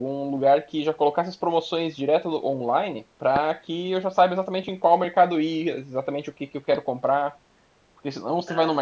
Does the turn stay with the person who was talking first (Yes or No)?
Yes